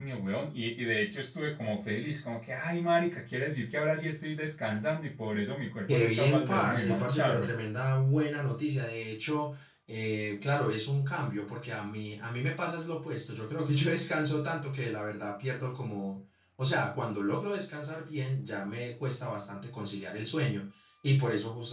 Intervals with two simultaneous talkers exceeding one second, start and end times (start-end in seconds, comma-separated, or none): 5.9-7.5